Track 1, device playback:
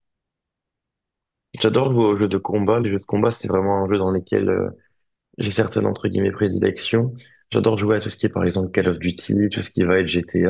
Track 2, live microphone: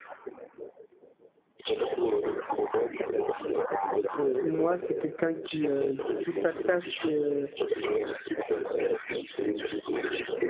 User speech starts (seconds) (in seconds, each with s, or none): 4.1 s